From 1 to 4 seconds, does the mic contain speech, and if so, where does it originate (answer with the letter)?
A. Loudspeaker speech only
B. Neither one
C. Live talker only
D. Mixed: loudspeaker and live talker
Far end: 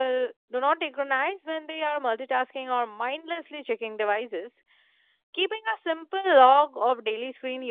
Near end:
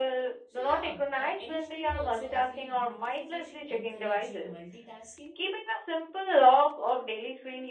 D